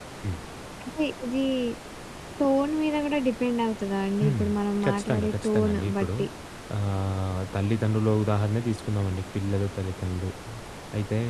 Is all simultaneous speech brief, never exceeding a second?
No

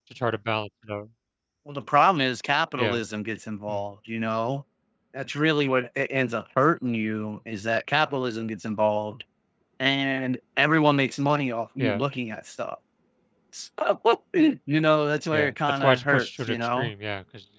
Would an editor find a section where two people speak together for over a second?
Yes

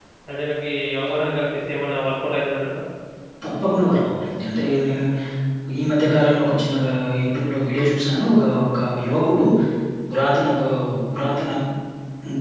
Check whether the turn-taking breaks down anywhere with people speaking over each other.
No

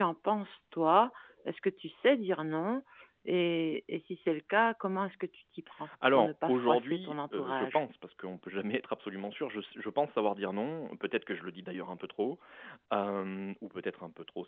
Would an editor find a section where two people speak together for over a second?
Yes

